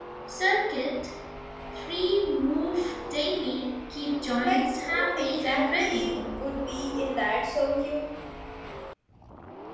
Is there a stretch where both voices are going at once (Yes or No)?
Yes